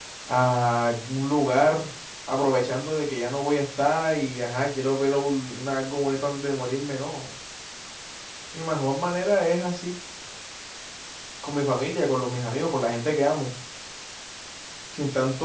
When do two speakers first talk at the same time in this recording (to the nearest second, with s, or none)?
none